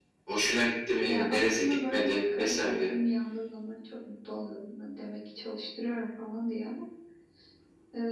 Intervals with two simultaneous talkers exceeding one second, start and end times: 1.1-2.9

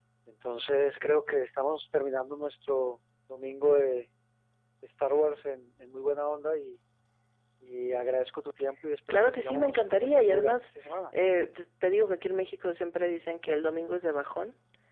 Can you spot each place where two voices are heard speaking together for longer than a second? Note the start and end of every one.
9.1-10.7

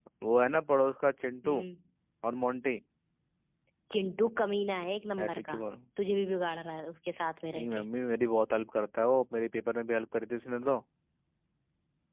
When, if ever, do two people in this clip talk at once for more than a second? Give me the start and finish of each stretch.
none

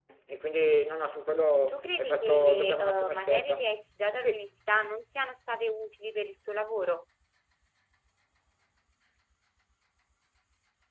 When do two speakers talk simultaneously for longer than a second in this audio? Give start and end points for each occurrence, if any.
1.7-3.6

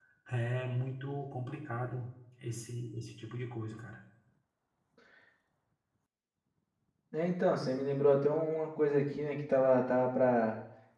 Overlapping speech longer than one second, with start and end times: none

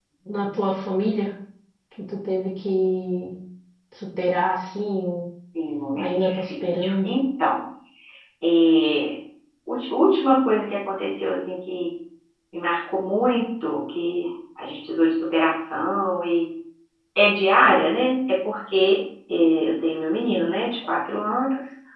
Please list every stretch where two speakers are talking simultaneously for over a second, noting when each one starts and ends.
5.9-7.2

